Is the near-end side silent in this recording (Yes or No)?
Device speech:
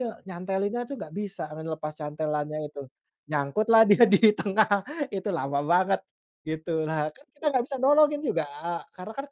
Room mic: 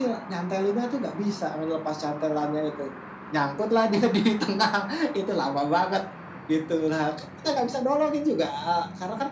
Yes